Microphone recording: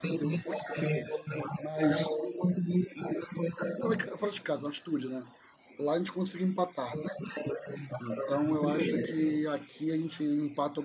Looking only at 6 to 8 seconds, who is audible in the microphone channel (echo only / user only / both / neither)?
both